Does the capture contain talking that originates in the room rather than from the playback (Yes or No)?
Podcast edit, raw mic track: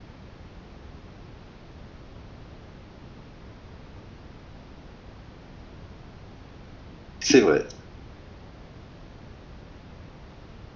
Yes